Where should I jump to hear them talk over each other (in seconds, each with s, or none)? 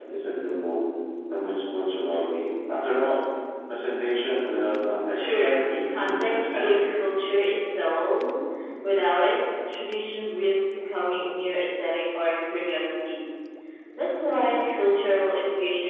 5.1 s